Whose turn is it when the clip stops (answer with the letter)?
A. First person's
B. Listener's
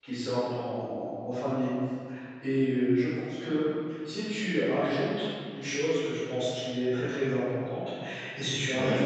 A